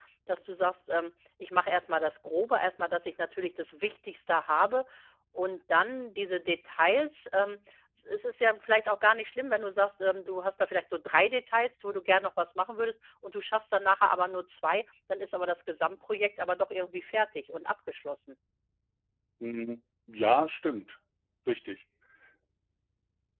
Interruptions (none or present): none